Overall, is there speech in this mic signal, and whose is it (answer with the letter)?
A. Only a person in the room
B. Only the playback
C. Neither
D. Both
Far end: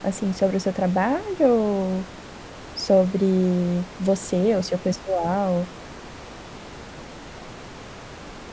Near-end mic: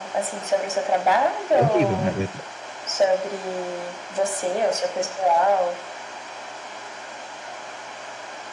D